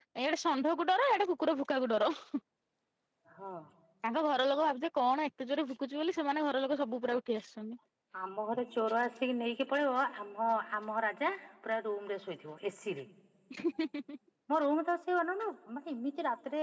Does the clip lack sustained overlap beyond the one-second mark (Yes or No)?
Yes